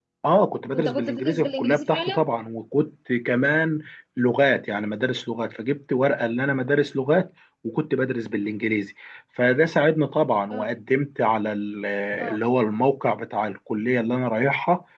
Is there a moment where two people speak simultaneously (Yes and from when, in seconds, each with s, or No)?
Yes, from 0.7 s